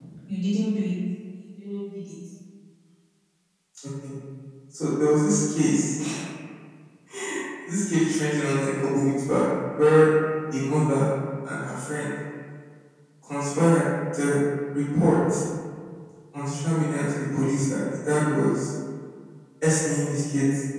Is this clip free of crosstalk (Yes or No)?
Yes